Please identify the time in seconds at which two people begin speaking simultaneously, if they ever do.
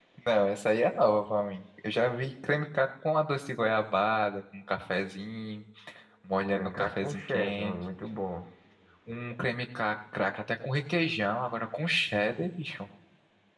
6.5 s

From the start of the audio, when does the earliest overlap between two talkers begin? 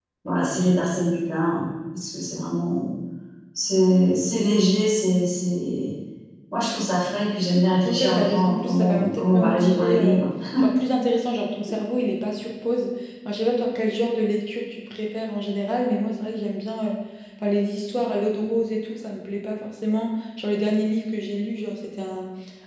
7.8 s

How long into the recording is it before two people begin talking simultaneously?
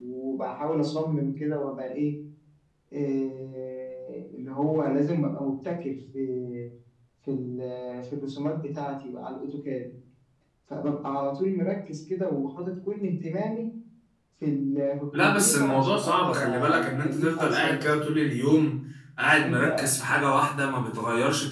15.1 s

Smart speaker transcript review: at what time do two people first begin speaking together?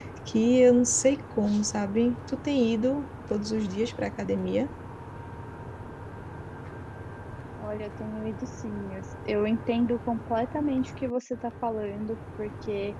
none

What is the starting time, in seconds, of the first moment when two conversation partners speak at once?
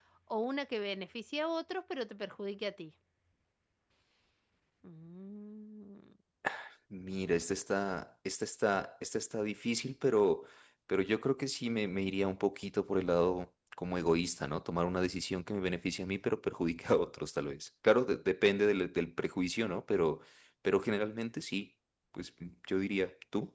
none

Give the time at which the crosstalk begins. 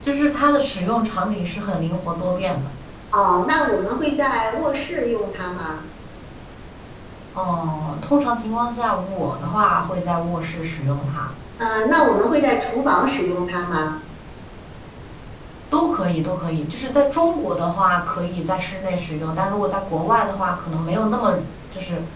none

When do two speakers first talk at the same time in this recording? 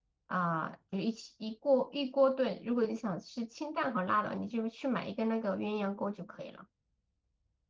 none

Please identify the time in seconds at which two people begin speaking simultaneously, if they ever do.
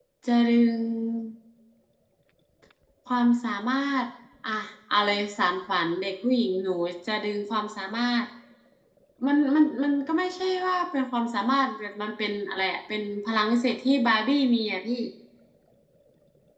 none

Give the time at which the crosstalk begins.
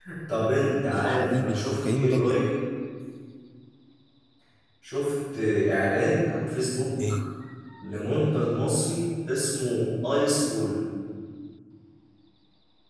0.9 s

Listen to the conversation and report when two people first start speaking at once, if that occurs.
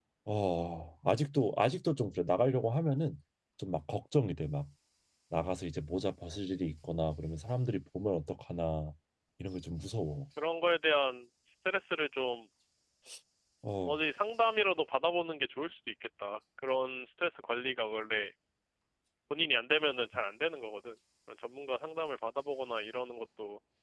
none

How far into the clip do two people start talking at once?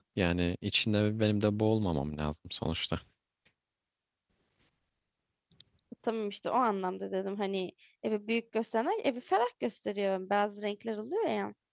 none

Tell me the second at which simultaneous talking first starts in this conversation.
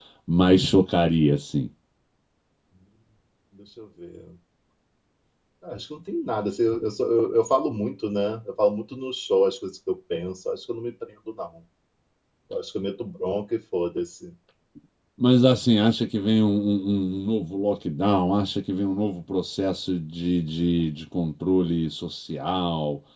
none

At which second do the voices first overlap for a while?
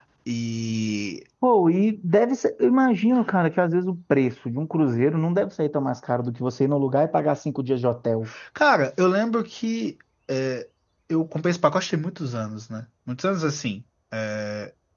none

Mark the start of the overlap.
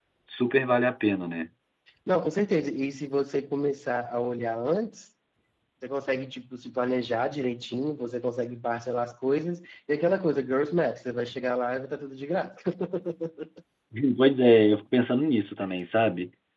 none

